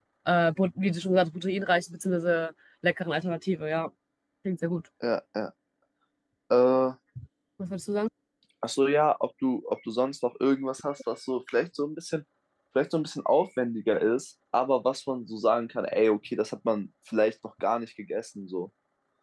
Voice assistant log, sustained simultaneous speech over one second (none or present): none